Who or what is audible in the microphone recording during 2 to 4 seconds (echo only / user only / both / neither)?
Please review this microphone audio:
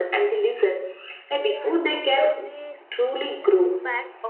both